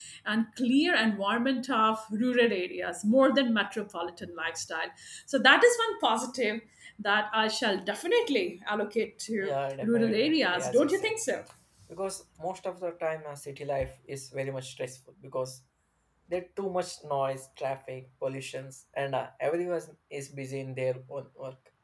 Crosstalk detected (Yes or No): Yes